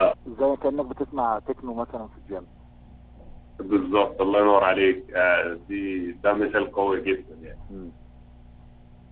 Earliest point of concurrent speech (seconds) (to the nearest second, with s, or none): none